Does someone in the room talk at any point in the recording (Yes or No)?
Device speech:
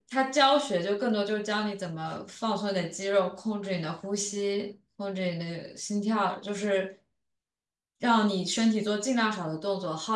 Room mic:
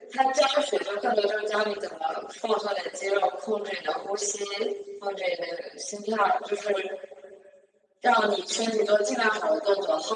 No